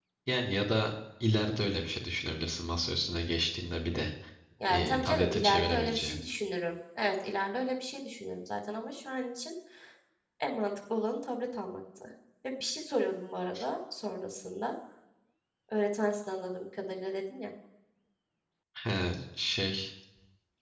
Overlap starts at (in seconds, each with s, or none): 4.7 s